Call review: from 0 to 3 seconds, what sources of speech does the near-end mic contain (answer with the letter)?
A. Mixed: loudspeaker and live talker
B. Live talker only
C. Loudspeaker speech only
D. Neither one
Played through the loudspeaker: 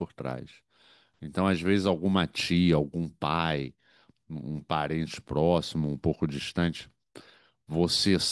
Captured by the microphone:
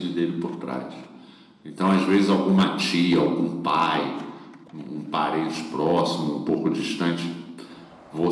C